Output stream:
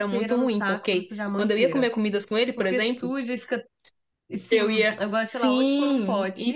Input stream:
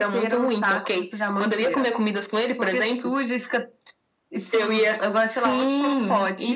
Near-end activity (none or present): none